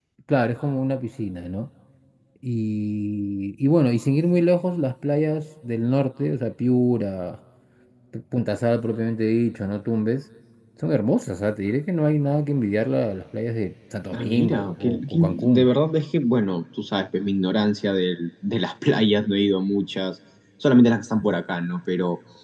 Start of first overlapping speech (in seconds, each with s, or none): 14.1 s